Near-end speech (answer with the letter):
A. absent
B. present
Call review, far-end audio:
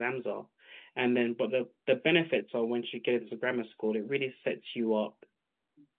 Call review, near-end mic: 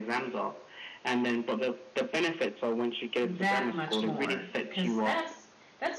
B